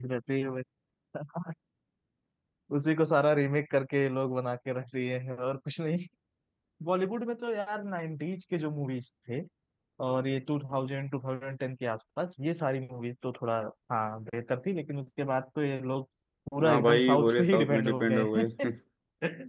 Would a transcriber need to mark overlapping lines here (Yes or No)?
Yes